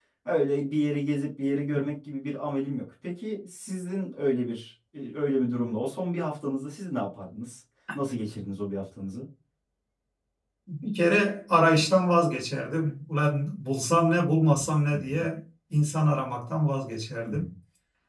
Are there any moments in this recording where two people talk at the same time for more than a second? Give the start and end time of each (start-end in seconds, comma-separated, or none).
none